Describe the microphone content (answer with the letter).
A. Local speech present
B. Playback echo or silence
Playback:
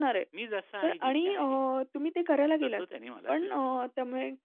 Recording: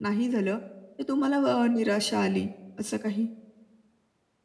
A